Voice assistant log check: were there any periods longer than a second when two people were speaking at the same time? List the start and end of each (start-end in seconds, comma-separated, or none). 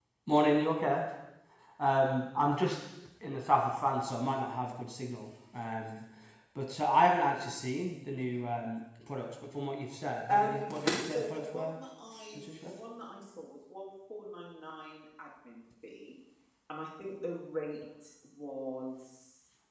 10.3-11.8